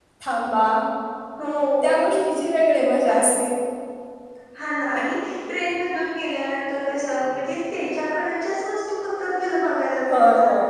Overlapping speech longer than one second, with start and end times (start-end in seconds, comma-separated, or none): none